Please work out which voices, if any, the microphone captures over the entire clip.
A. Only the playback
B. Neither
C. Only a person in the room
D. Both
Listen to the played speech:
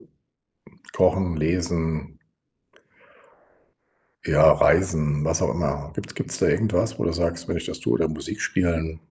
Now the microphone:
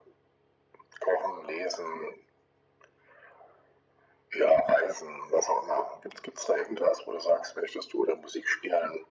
A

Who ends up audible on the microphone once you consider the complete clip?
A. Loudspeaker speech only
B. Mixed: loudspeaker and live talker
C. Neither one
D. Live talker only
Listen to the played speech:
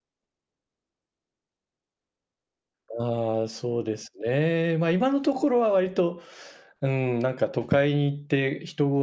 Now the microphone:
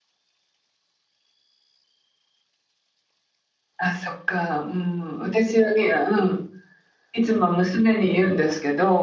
D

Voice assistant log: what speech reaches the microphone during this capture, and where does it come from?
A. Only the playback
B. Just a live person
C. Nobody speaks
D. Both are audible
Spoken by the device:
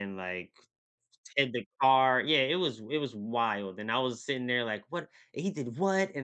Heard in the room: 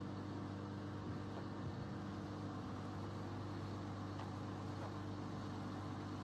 C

